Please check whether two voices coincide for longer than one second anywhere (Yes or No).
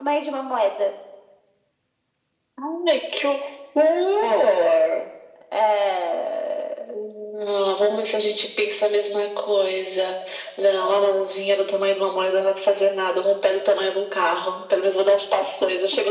No